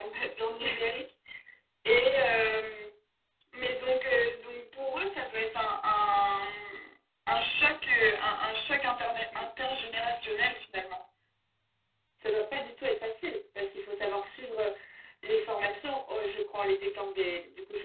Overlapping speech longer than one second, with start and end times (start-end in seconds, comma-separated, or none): none